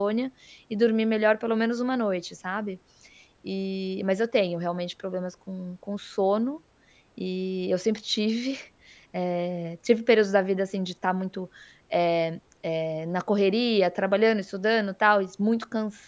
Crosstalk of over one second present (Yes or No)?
No